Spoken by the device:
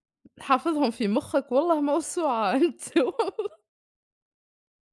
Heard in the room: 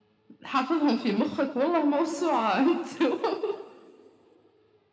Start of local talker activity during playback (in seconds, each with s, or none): none